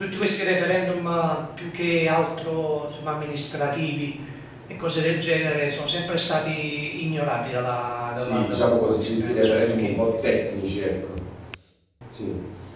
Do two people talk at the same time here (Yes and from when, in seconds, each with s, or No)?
Yes, from 8.2 s